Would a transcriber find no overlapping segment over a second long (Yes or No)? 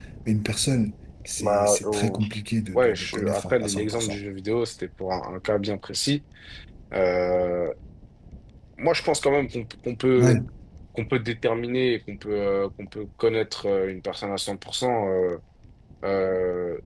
No